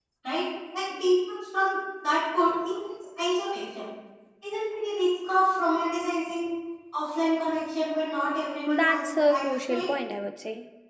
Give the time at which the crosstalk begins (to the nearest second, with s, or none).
9 s